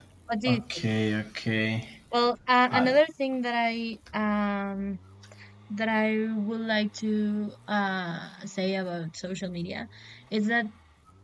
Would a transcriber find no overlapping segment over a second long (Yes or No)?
Yes